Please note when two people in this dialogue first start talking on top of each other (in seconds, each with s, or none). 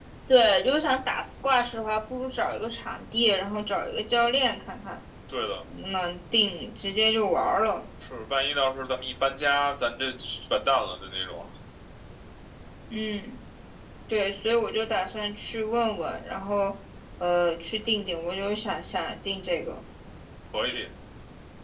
none